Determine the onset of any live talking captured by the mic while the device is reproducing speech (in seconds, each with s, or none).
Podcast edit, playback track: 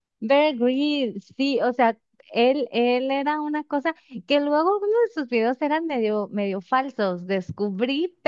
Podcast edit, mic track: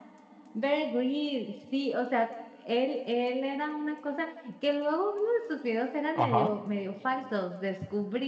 6.1 s